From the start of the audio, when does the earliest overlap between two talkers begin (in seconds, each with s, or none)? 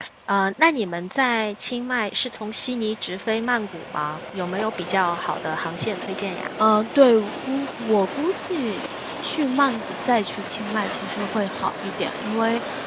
none